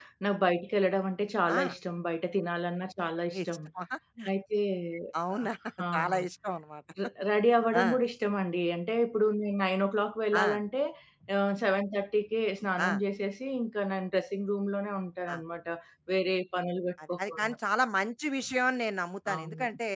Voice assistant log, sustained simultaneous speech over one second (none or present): none